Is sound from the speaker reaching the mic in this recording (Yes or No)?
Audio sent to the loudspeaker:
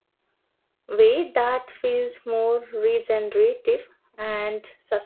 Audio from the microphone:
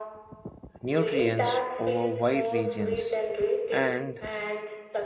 Yes